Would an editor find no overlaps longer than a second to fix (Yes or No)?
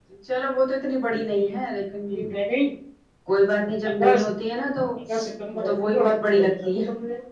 No